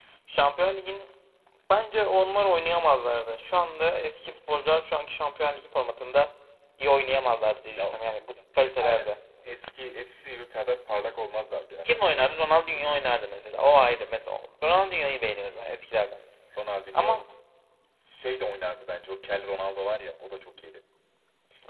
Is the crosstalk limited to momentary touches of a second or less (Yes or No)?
Yes